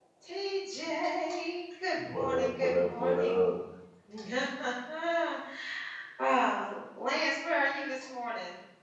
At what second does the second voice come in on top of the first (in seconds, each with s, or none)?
2.0 s